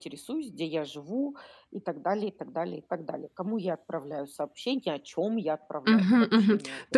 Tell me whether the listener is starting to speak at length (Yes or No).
Yes